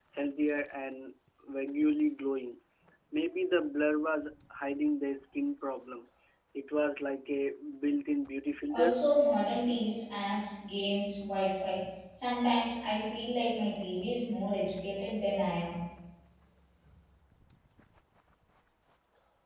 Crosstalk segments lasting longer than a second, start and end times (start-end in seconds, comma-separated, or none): none